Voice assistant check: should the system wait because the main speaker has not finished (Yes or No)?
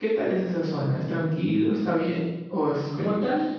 No